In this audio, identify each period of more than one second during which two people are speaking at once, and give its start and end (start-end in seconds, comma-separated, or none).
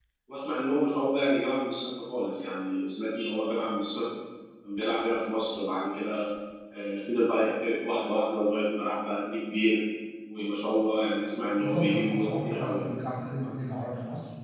11.6-12.9